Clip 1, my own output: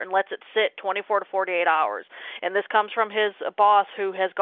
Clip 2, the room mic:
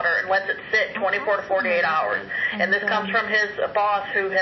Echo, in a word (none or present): present